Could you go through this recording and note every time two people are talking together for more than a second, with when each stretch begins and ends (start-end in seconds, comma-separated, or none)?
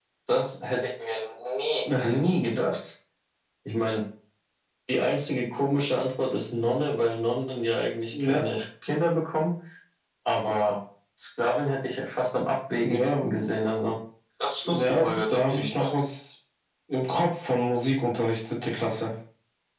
14.7-15.9